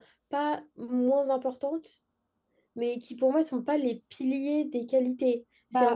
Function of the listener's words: listening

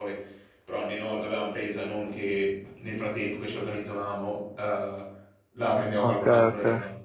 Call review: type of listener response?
taking over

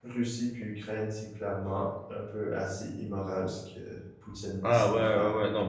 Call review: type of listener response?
taking over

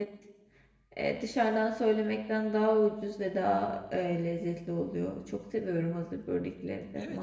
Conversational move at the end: taking over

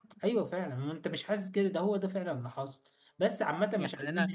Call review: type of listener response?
taking over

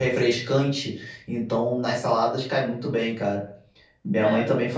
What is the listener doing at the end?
listening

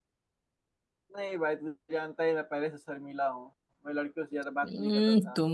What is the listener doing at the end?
taking over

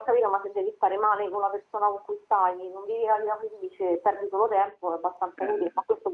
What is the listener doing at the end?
listening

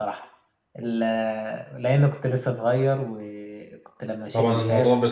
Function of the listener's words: taking over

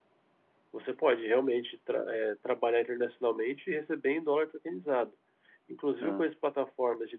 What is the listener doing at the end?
listening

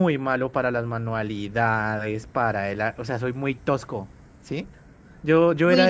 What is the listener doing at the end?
taking over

